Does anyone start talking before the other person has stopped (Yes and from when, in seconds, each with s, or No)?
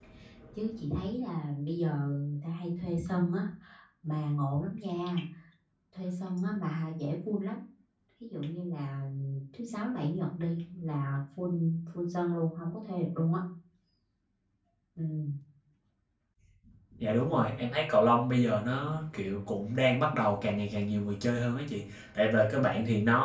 No